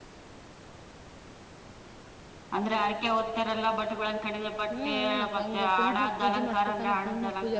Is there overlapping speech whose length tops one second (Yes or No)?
Yes